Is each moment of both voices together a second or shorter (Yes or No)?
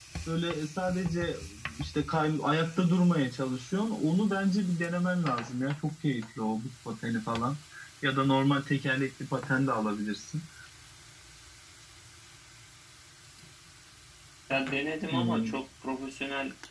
Yes